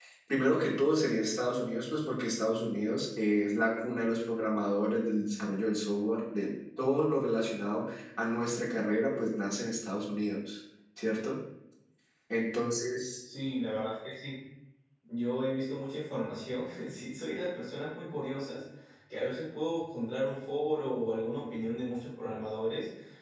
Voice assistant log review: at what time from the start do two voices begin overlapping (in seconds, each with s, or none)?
none